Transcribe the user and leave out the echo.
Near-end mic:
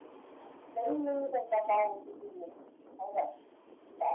none

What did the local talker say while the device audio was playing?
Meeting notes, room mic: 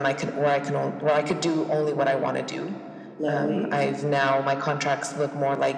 Lovely.

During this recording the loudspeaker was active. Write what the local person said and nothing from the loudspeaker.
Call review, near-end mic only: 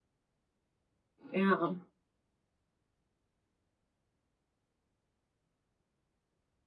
Yeah.

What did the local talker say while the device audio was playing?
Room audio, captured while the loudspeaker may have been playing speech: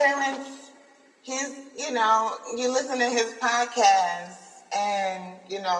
none

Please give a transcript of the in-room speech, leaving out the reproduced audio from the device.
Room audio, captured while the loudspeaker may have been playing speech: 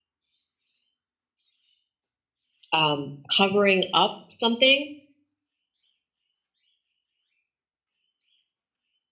um covering up something

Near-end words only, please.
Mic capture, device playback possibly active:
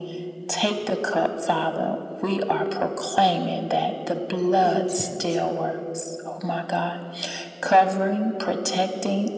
intent,

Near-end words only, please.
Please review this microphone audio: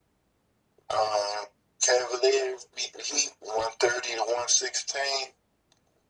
none

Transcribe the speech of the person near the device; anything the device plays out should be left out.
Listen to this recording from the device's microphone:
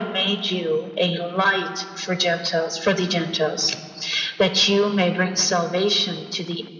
none

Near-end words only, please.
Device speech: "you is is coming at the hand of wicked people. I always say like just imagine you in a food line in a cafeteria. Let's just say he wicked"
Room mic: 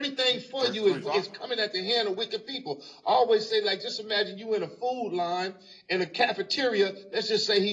Mm, Verse 25.

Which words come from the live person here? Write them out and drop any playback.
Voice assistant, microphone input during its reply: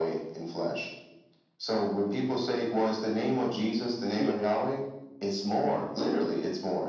yeah,

